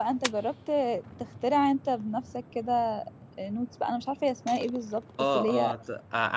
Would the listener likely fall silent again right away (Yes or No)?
No